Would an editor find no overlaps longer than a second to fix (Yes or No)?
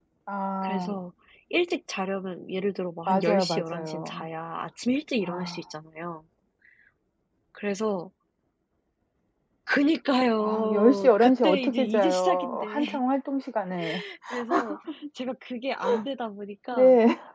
No